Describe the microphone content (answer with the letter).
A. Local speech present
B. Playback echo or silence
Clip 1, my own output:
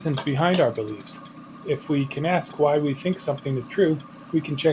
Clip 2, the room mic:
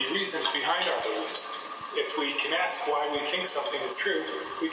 B